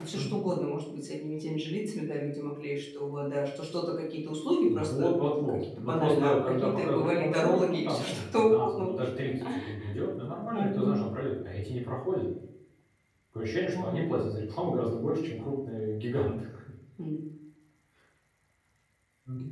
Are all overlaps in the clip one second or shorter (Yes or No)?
No